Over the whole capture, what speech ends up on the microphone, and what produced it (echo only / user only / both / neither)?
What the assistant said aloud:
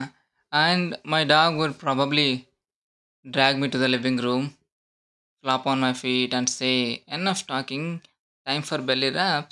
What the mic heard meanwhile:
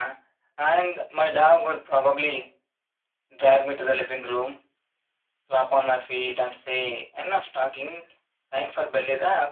echo only